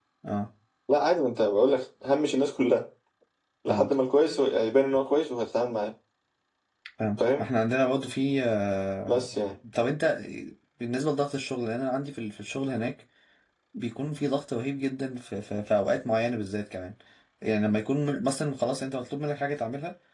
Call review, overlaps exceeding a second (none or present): none